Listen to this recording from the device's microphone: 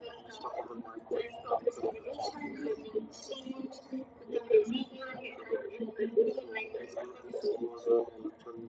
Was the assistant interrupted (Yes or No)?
No